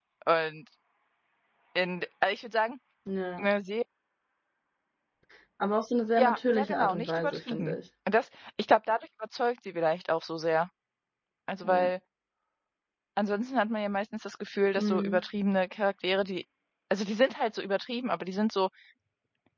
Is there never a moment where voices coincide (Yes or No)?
No